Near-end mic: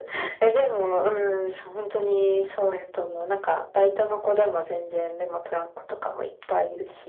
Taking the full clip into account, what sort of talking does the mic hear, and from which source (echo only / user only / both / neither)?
both